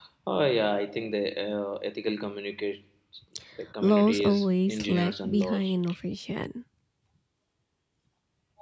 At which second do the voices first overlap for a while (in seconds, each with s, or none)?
3.8 s